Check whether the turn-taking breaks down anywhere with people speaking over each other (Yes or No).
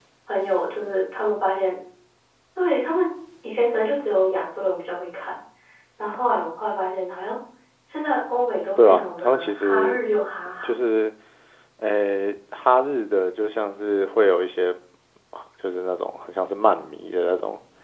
Yes